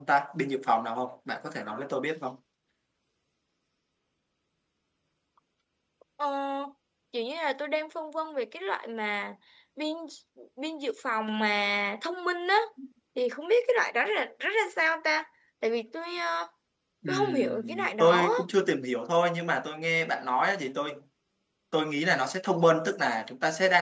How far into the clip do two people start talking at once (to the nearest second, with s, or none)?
17 s